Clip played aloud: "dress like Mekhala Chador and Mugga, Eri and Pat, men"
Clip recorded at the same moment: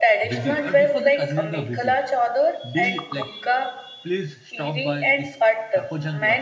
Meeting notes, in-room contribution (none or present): present